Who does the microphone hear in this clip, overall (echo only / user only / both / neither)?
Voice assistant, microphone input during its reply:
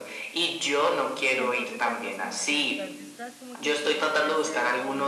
both